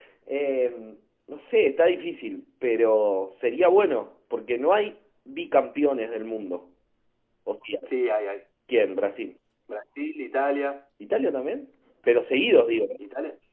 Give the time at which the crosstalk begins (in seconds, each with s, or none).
none